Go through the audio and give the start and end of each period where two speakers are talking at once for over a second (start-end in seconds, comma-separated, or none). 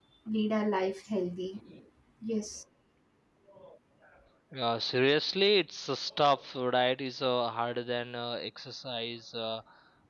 none